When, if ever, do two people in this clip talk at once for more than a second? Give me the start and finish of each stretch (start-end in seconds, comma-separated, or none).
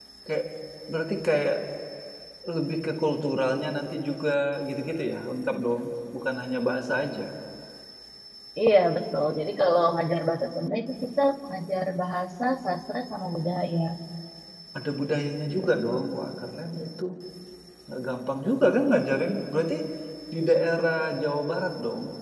none